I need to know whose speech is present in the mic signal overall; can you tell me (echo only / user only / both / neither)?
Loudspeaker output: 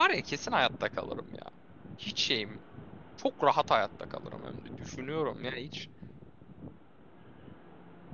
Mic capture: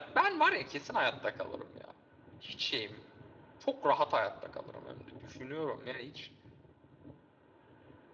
echo only